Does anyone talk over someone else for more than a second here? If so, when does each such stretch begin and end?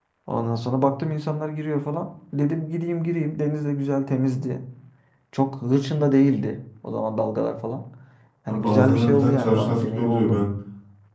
8.5-10.4

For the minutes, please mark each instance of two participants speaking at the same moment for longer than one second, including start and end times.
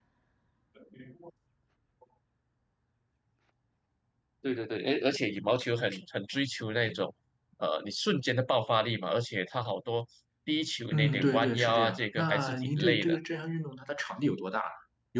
10.9-13.2

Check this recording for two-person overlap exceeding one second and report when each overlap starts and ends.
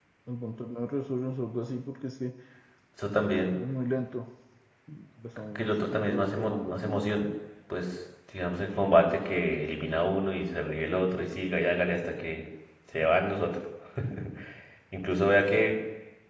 5.6-7.1

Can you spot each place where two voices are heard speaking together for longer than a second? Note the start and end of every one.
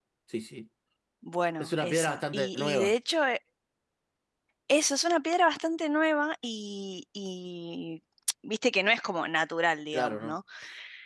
1.6-2.9

